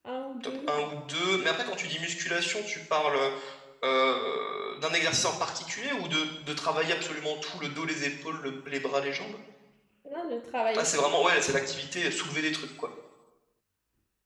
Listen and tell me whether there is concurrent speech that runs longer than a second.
No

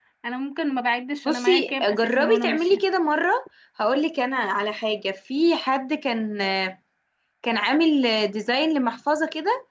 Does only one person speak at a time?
No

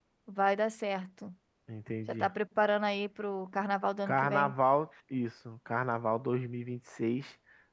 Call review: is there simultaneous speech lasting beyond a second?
No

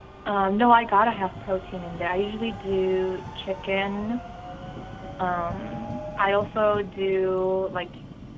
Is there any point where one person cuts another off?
No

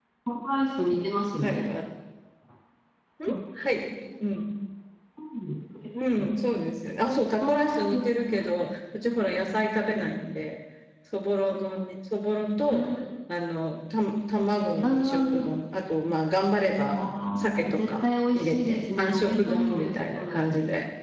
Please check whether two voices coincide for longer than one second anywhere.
Yes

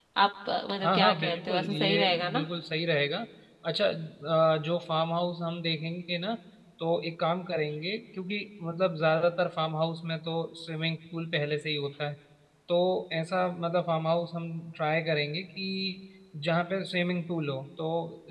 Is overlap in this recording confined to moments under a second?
No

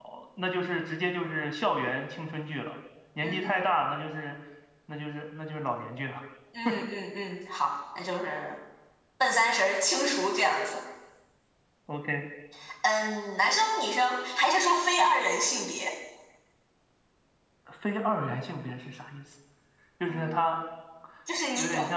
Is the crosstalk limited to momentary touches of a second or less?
Yes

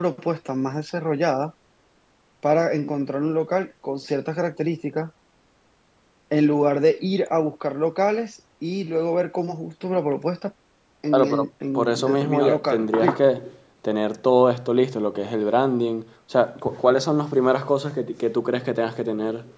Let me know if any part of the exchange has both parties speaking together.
Yes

